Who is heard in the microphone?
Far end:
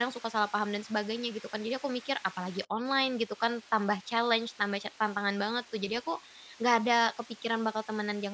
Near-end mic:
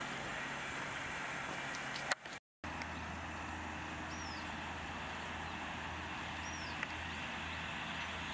neither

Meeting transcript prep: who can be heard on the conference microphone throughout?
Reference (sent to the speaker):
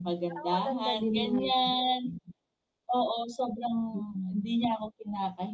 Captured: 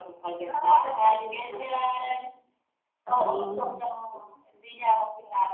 both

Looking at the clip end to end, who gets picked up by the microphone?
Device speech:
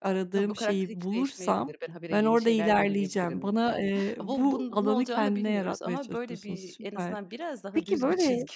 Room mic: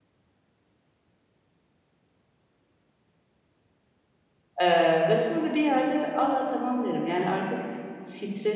user only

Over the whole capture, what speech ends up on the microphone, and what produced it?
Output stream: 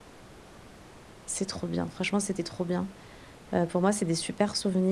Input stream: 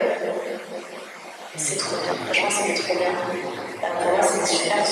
both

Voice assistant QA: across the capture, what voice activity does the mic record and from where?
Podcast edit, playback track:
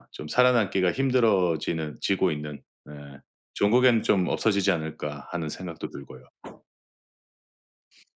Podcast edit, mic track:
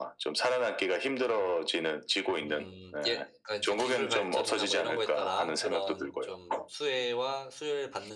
both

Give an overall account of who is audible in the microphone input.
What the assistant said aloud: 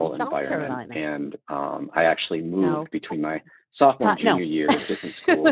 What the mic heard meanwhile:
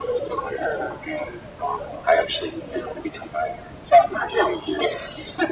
echo only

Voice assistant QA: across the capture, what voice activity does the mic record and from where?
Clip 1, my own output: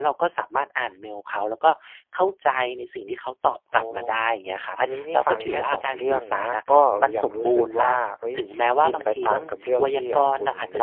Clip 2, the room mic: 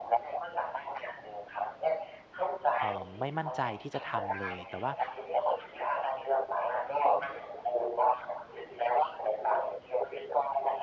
both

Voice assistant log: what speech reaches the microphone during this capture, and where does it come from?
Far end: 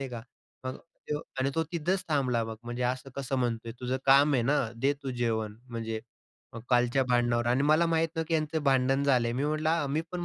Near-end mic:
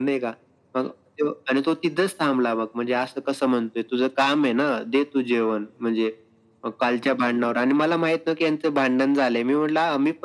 echo only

